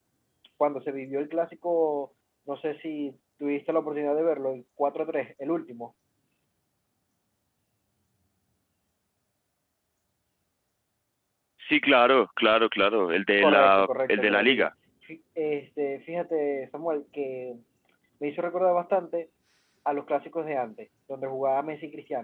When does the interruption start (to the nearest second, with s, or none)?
13 s